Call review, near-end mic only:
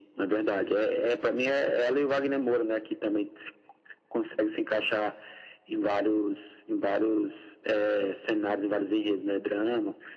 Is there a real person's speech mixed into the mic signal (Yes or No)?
No